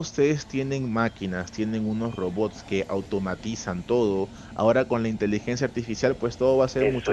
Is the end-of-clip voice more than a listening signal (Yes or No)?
Yes